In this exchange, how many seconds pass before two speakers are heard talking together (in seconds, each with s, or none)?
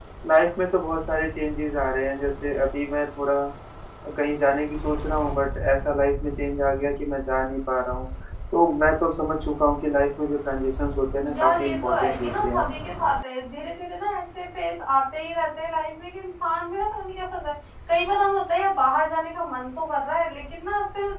11.2 s